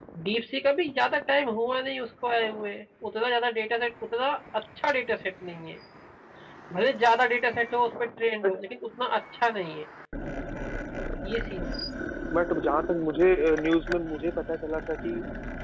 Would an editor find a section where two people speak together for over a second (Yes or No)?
No